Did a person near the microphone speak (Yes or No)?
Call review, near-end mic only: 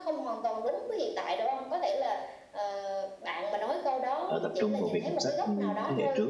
Yes